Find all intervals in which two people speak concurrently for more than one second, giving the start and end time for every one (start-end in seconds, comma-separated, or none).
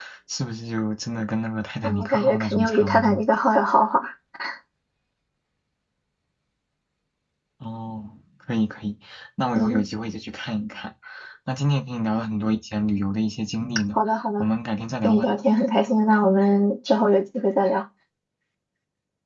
1.8-3.2